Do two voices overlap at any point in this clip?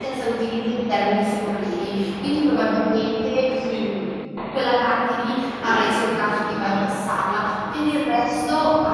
Yes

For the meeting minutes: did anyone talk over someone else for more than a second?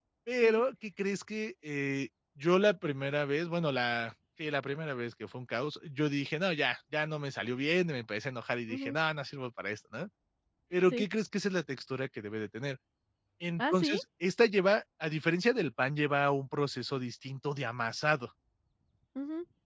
No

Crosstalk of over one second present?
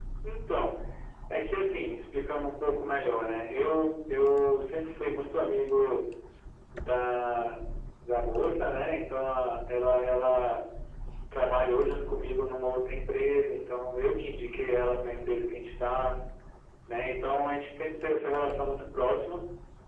No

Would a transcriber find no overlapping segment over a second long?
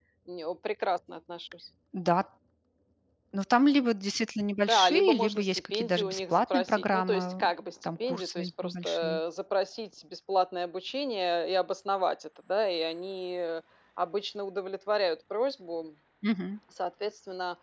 No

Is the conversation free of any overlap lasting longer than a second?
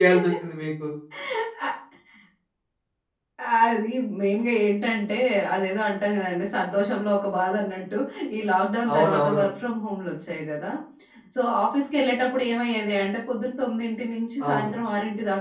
Yes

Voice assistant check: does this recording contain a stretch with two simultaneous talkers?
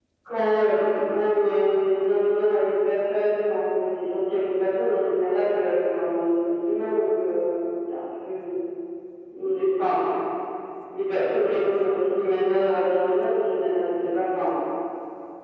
No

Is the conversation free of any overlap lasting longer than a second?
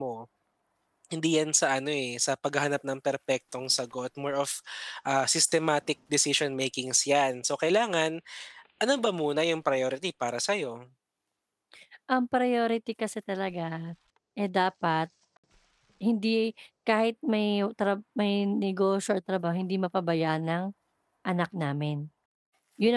Yes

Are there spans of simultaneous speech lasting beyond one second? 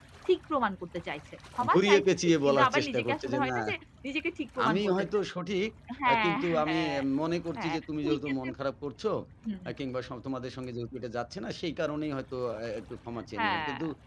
Yes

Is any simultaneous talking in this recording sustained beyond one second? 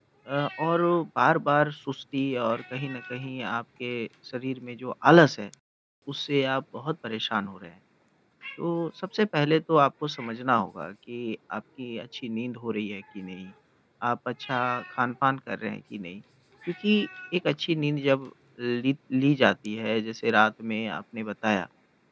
No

